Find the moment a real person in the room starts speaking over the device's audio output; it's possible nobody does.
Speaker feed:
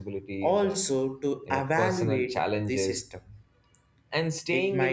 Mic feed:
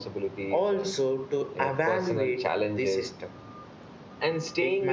none

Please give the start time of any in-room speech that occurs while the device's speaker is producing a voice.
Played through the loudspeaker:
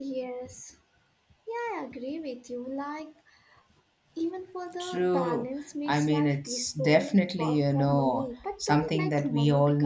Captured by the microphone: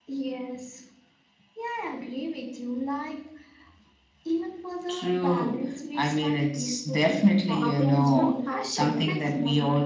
7.6 s

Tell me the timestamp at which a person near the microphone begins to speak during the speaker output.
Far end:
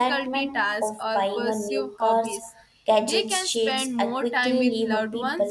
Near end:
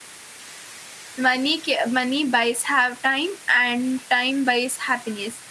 1.2 s

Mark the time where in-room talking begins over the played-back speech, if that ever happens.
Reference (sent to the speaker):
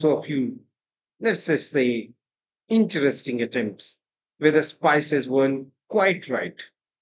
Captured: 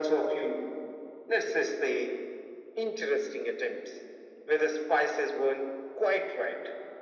none

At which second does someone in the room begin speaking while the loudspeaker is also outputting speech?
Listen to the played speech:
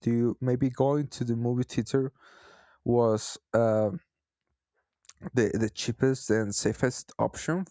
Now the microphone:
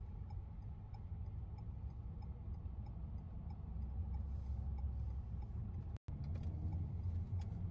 none

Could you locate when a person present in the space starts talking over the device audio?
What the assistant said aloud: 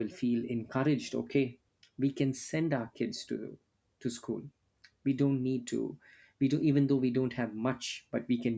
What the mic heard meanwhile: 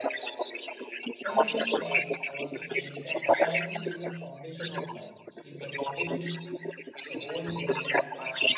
1.2 s

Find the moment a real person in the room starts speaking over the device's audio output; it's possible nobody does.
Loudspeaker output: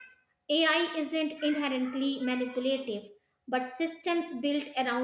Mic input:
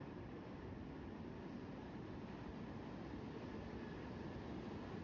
none

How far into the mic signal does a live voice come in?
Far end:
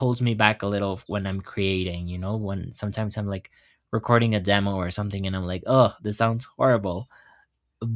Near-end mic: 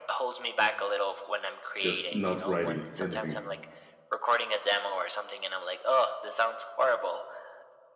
1.8 s

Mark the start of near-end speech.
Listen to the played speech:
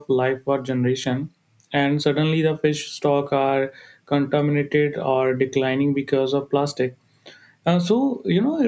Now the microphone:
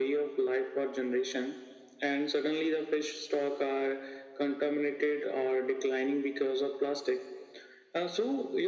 none

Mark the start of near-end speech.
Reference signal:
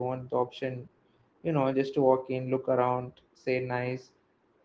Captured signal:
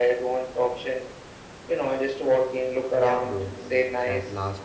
2.9 s

